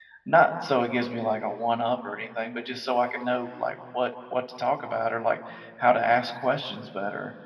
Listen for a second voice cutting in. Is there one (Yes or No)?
No